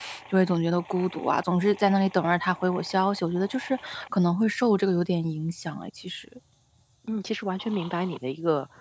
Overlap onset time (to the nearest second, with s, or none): none